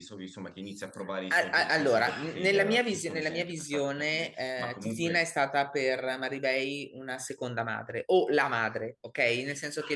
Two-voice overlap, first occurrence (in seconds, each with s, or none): 1.3 s